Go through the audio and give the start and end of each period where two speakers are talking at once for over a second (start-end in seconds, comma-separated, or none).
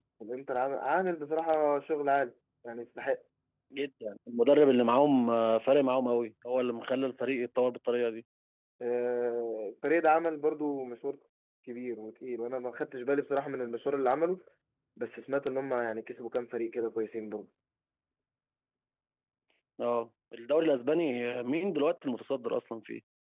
none